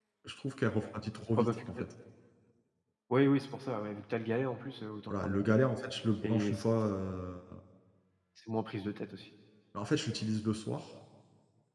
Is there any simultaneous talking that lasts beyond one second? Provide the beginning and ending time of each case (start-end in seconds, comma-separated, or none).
none